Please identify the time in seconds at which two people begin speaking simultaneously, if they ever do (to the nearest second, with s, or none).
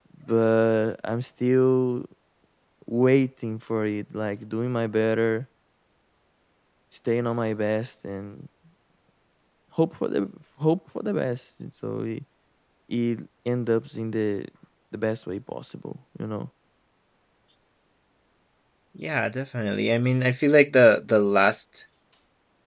none